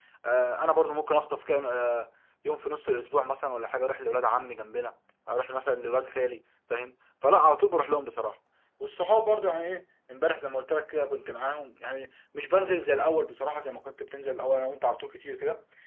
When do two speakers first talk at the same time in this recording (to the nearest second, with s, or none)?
none